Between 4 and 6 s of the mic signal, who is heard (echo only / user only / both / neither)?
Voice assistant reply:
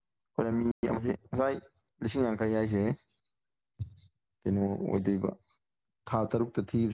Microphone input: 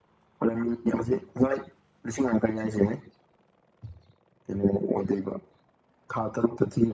echo only